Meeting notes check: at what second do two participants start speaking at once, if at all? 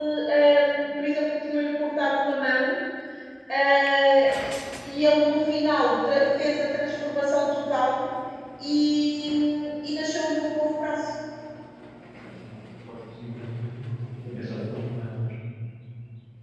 none

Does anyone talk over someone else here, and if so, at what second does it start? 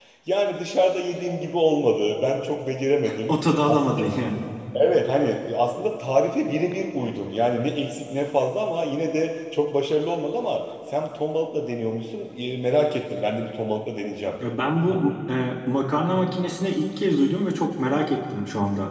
none

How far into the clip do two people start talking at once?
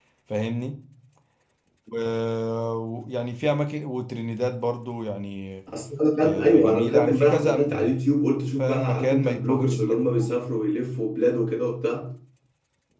6.2 s

